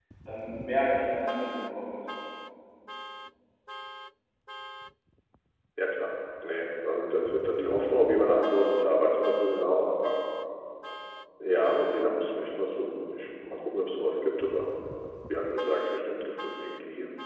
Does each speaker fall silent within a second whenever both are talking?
Yes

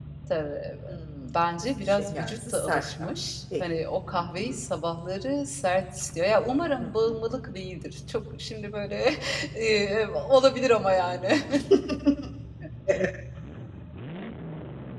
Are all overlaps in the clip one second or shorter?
No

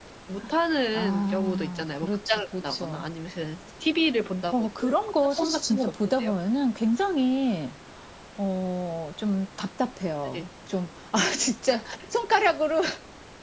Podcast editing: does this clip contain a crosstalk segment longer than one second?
Yes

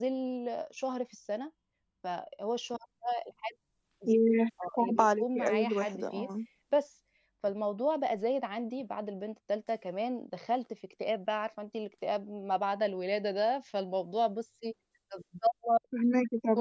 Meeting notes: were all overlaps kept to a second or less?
No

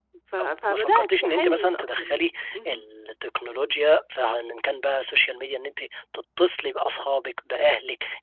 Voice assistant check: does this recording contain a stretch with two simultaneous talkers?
Yes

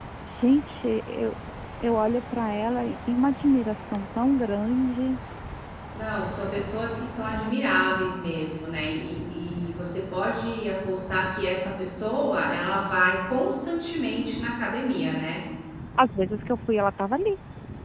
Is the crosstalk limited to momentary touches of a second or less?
Yes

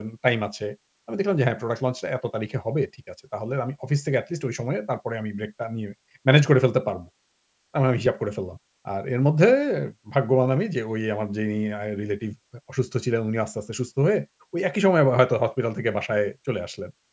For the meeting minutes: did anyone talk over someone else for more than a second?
No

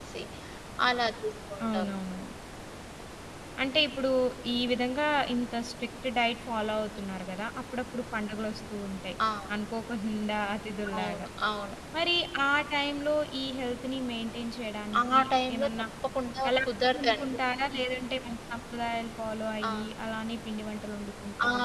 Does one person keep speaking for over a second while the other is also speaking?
No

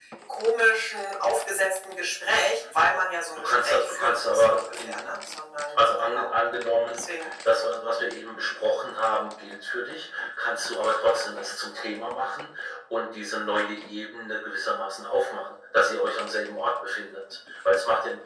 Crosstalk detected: Yes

